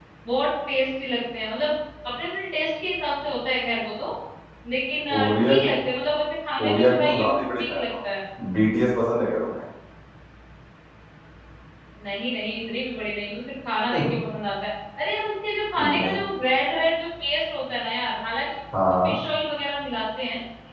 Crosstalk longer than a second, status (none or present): present